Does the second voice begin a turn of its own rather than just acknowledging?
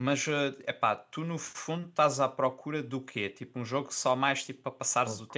Yes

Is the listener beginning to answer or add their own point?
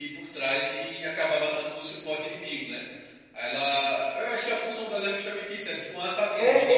Yes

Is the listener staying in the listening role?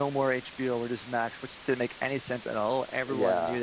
Yes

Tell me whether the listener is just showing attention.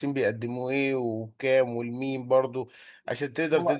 Yes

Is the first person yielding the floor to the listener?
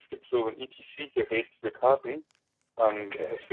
No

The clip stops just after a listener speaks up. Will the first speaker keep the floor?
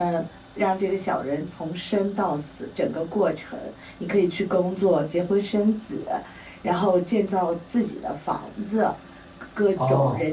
Yes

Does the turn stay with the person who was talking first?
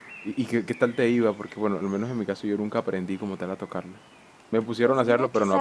No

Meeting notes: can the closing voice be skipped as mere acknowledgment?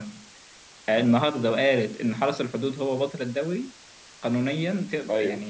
Yes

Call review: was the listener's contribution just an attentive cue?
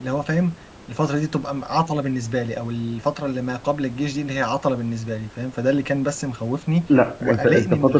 No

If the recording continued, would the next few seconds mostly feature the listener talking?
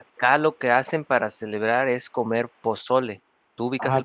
Yes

